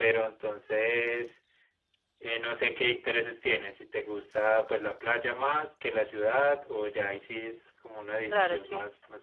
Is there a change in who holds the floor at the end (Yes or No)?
Yes